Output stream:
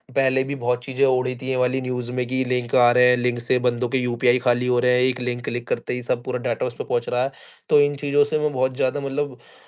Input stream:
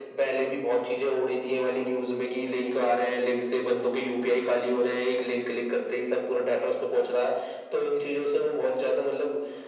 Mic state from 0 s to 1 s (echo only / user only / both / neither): echo only